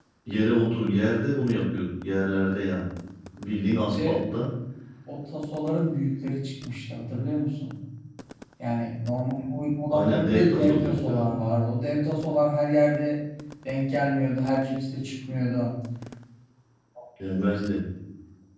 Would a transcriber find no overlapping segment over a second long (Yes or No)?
No